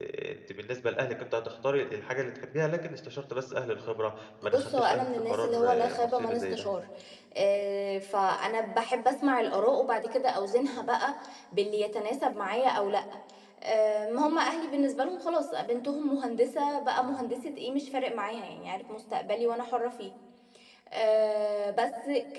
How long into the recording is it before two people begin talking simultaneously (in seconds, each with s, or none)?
4.4 s